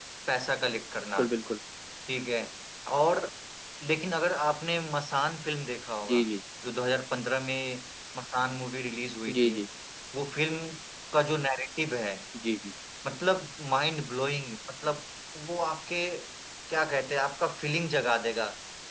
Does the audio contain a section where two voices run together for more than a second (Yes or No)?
No